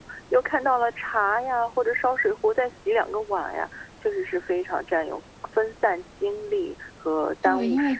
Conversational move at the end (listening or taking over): taking over